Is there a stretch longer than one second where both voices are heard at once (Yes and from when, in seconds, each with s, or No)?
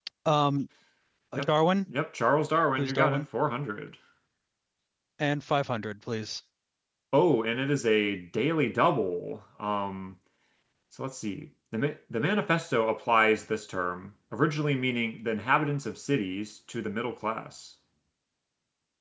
No